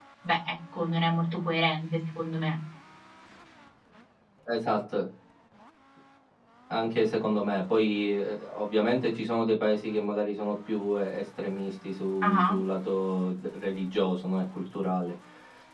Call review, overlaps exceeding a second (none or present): none